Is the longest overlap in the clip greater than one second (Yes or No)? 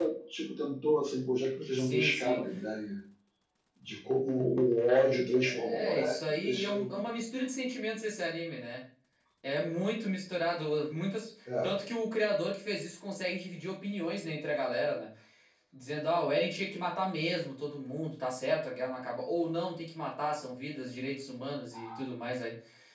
Yes